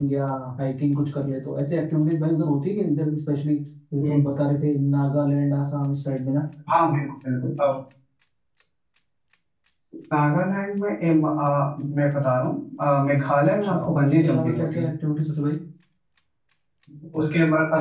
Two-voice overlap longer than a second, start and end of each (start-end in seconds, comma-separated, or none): 13.4-14.9